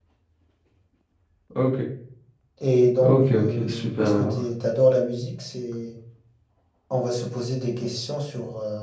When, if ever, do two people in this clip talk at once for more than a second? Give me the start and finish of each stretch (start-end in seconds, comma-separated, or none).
3.0-4.4